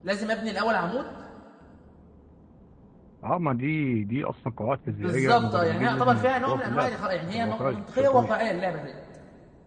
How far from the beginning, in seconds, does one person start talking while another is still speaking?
4.9 s

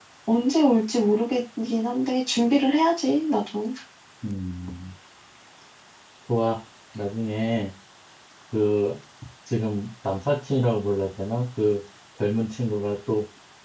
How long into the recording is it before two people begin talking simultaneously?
none

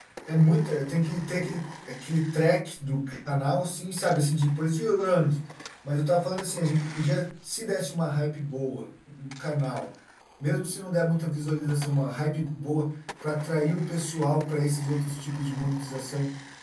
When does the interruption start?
none

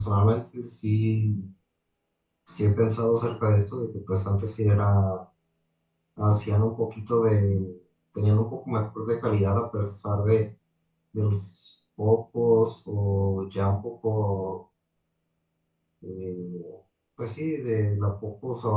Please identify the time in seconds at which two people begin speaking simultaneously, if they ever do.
none

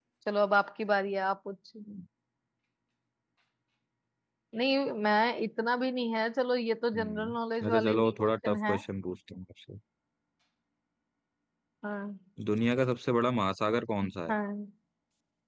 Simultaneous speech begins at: 6.9 s

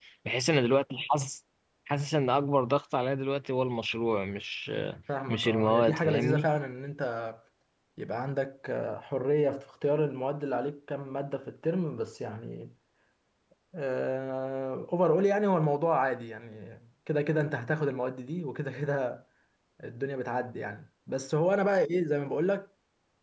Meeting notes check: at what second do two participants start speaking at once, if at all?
5.1 s

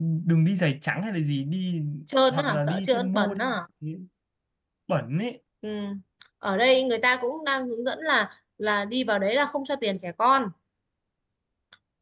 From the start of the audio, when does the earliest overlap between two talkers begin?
2.3 s

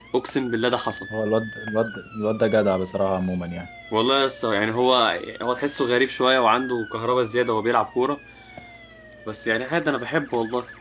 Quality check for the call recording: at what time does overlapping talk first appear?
none

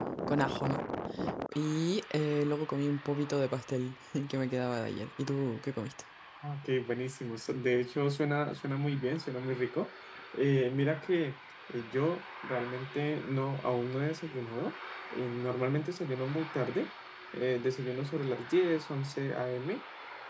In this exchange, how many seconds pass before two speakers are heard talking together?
none

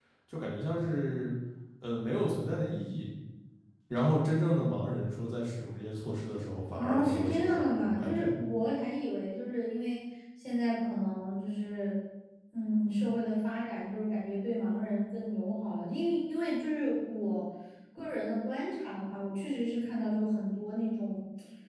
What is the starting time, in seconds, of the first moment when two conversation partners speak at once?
6.7 s

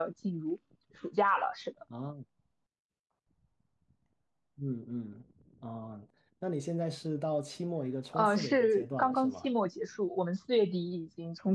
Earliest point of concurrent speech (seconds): 8.1 s

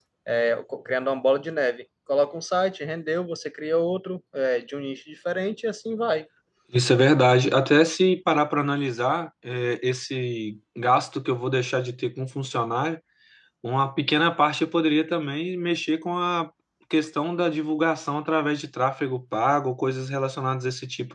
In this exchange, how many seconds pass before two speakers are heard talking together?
none

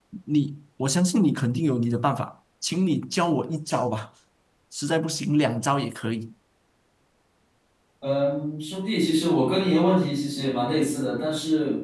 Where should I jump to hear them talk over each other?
none

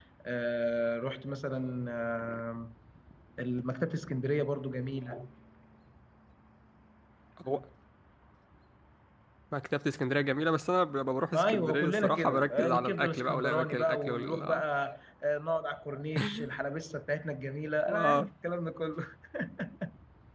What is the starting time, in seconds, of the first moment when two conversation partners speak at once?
11.3 s

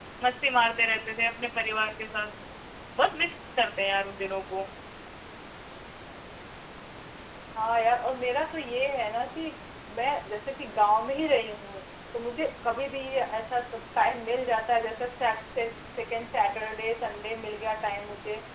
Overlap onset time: none

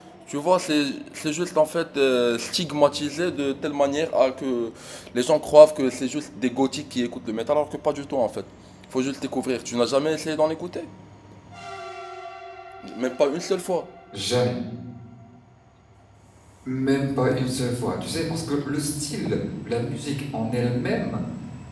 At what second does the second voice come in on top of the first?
none

